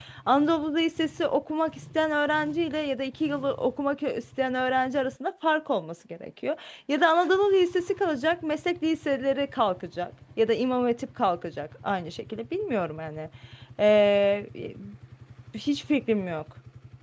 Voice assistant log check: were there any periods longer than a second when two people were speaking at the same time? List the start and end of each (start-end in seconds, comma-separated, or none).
none